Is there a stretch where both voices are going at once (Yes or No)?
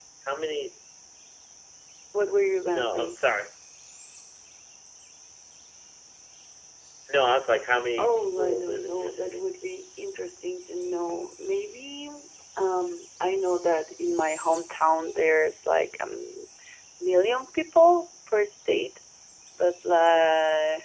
Yes